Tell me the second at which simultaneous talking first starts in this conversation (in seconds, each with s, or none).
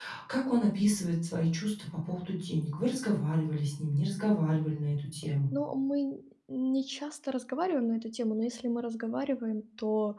none